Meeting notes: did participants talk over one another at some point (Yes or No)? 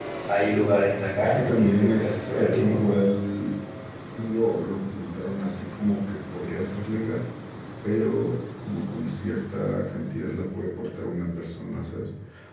Yes